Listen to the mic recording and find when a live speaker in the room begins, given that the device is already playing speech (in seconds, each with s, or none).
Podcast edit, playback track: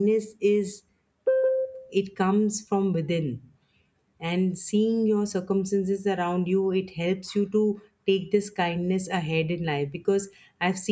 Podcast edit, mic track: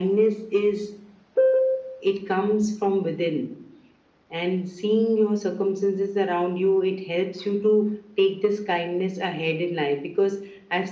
none